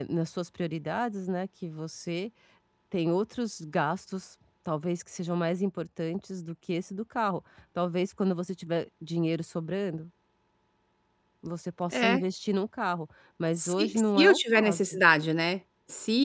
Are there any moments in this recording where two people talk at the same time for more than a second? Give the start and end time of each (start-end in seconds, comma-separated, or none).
13.6-14.8